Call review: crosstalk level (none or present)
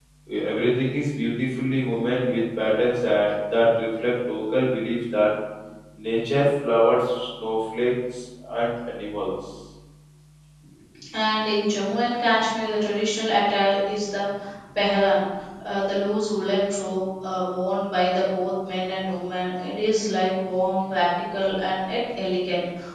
none